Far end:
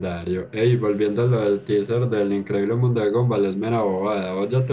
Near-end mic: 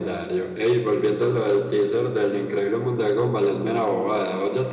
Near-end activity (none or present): none